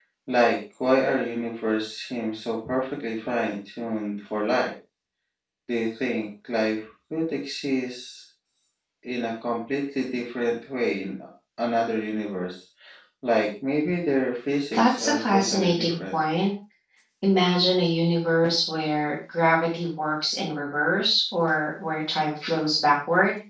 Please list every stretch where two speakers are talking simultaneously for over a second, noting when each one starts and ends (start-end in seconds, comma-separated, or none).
14.7-16.2